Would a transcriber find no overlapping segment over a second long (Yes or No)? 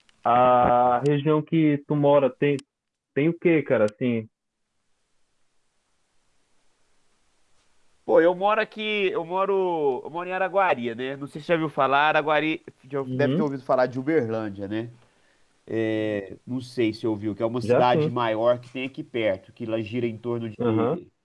Yes